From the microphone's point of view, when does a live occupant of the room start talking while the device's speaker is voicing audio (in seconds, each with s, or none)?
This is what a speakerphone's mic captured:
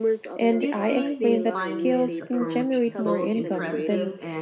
0.6 s